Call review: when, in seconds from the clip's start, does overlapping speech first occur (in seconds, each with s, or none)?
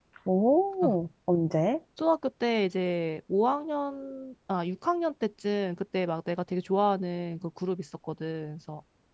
none